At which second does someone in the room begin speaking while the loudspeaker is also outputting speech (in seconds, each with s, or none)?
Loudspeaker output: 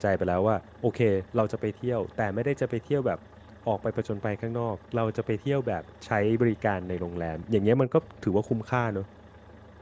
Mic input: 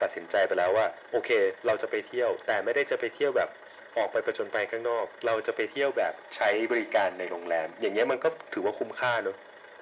none